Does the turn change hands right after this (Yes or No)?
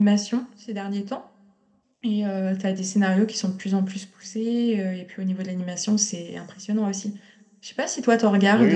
Yes